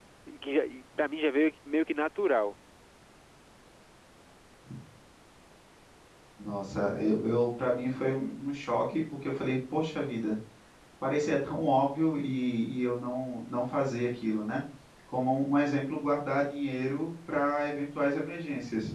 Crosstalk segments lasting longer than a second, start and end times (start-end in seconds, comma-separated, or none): none